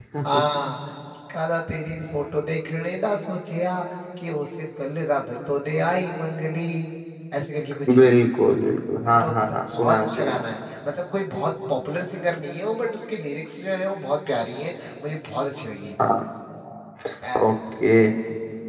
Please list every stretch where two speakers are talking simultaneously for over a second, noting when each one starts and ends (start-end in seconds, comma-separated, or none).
9.2-10.4